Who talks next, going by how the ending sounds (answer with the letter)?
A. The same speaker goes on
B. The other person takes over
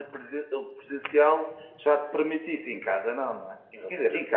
A